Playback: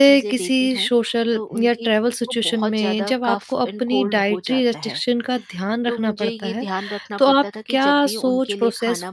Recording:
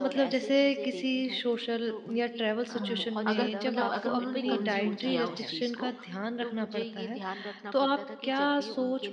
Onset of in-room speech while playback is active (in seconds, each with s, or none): 2.7 s